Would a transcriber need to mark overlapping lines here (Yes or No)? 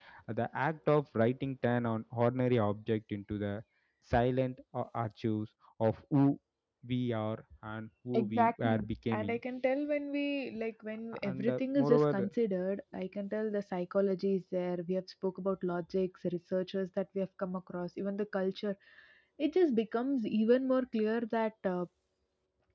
Yes